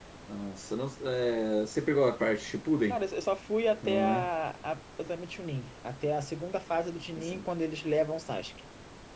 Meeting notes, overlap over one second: none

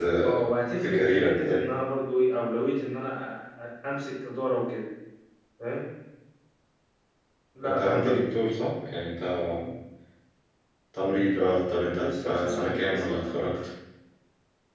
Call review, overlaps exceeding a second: present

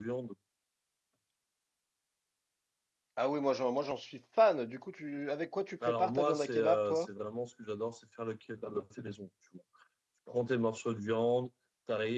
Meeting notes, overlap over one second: present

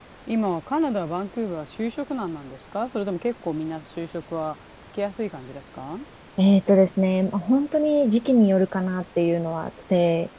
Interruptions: none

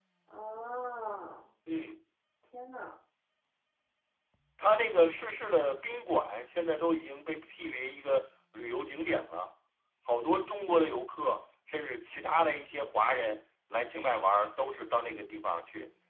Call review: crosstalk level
none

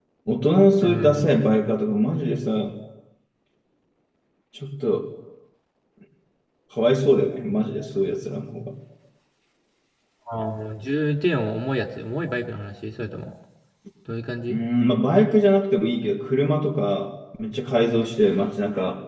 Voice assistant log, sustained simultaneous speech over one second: none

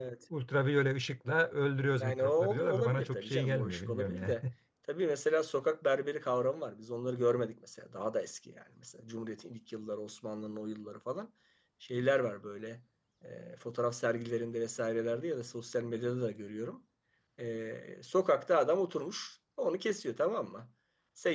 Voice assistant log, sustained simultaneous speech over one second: present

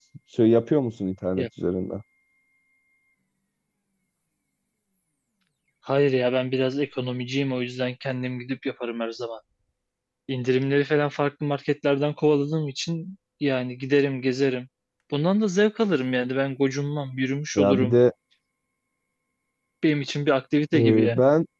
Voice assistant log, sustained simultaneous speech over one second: none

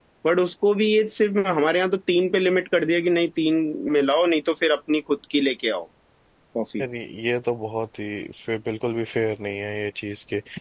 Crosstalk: none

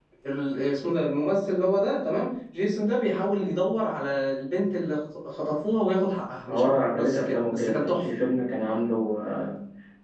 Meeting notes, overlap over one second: present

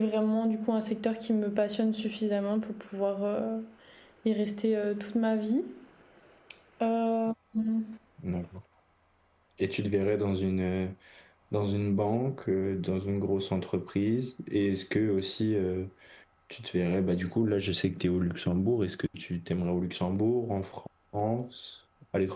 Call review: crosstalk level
none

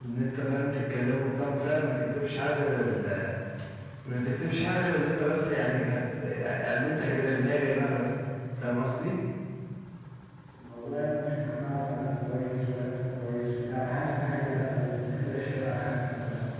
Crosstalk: none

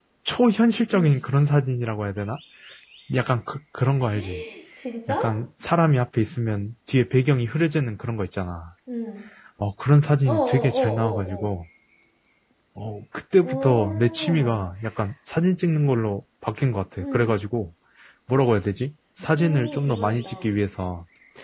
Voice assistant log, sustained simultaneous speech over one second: present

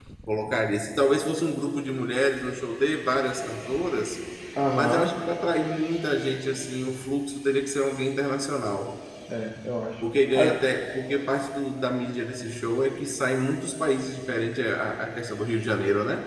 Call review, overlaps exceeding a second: none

